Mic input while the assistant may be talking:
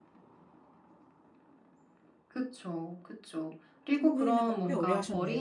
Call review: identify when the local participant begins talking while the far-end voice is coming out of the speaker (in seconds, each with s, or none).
4.0 s